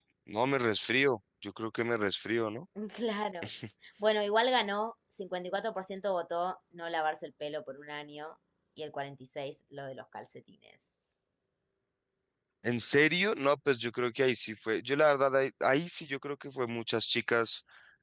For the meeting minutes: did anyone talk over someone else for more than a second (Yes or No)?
No